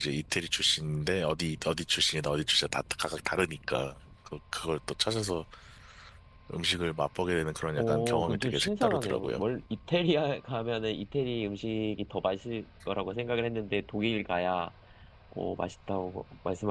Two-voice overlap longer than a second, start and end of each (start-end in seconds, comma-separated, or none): 7.8-9.4